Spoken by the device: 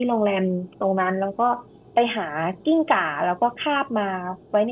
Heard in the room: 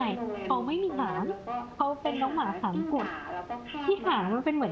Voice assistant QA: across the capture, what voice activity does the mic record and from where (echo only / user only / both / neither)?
both